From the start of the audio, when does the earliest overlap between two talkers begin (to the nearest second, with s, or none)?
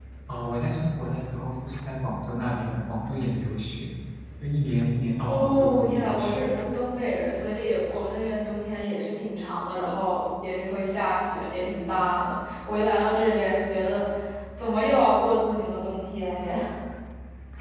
5 s